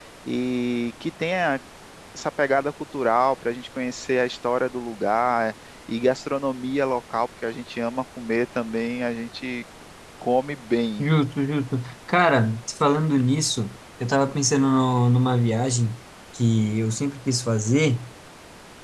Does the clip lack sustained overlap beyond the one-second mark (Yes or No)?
Yes